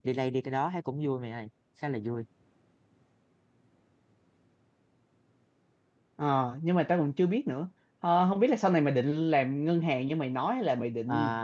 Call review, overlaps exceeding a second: none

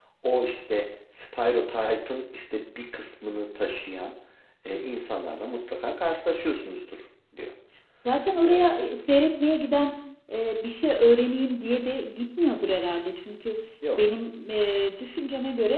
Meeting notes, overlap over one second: none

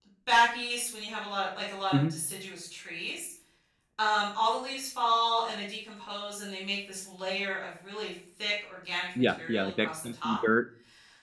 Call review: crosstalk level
present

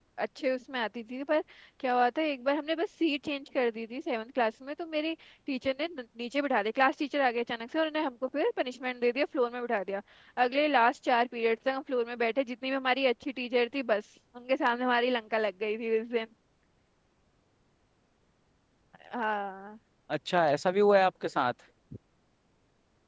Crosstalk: none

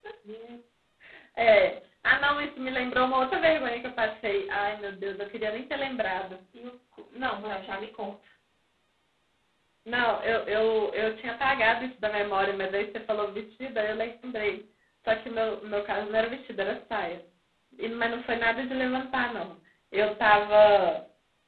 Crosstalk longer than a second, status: none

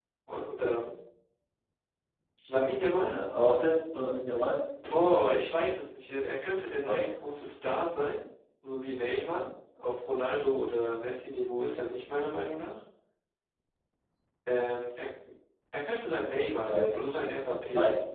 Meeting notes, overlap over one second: none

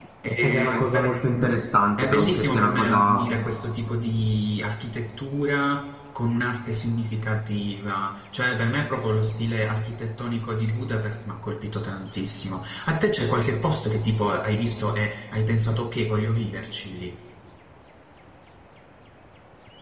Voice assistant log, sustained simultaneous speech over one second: present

